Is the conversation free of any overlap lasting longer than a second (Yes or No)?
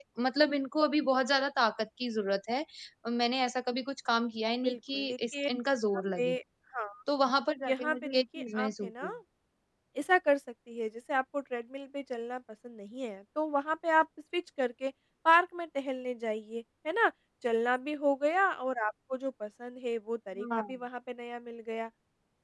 No